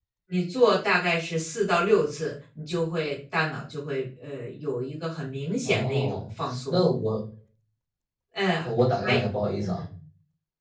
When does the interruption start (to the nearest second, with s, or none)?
6 s